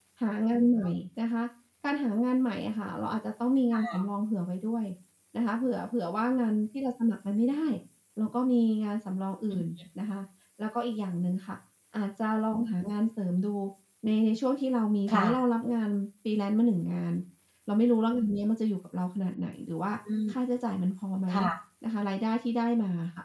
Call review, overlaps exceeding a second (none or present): none